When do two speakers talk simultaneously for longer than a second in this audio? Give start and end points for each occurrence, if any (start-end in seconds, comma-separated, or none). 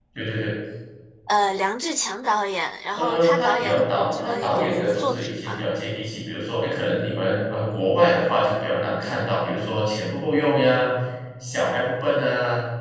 2.9-5.6